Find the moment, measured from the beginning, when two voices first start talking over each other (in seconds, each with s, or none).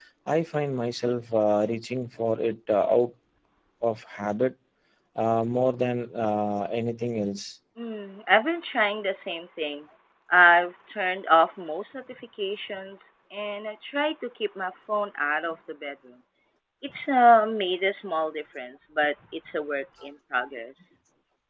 none